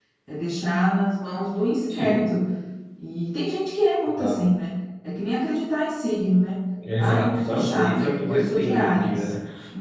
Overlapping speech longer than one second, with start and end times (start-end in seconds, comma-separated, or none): 7.0-9.2